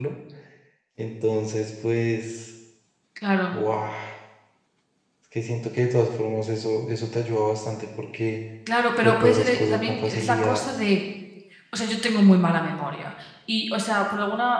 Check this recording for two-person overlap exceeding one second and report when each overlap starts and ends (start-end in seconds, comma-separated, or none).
9.0-10.6